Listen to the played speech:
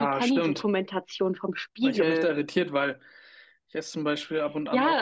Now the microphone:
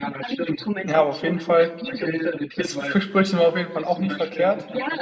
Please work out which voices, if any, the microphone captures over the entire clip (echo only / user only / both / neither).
both